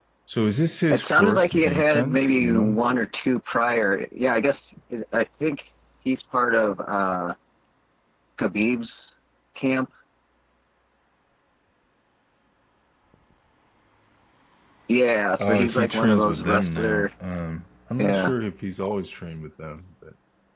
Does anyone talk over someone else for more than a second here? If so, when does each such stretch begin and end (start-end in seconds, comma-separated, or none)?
0.9-2.8, 15.4-17.1